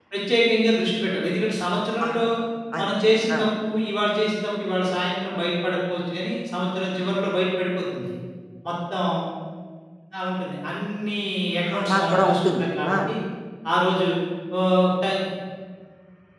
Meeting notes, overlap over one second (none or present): present